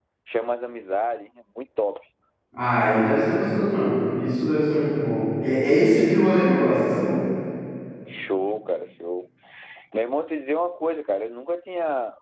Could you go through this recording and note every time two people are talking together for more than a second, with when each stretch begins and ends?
none

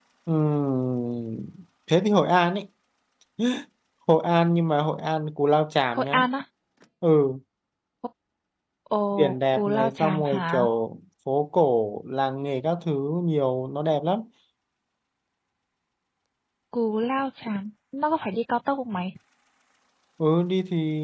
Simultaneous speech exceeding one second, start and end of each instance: 9.1-10.7

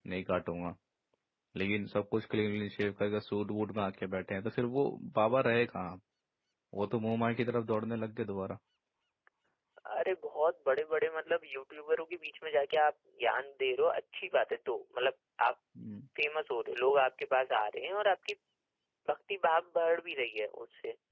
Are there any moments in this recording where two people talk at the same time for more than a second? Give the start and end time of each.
none

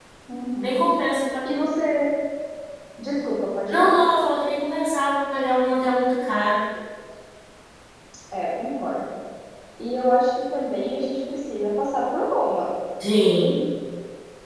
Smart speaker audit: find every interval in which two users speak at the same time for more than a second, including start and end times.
none

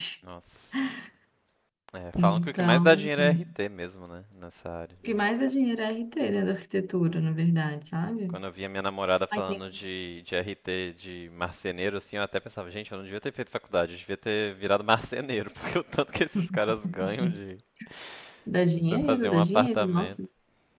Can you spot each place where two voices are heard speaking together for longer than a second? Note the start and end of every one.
2.2-3.4, 18.9-20.1

